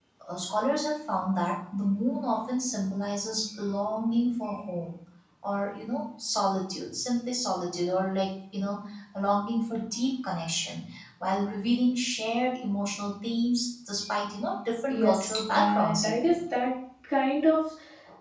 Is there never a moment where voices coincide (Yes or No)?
No